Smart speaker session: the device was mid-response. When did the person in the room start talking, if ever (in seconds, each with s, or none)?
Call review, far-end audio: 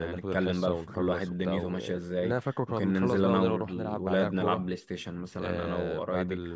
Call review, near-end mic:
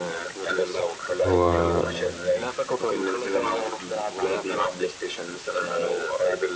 1.2 s